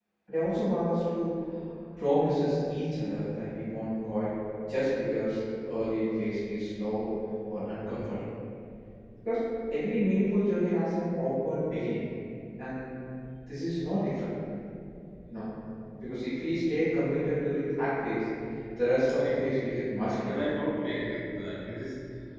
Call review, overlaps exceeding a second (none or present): none